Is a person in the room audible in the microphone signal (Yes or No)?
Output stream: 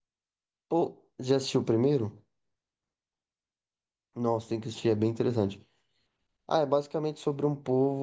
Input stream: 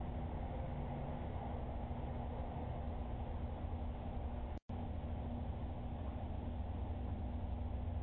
No